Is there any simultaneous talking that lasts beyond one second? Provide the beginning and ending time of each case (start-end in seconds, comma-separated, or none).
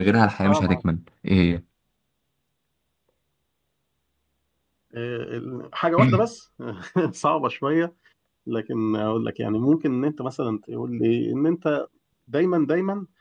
none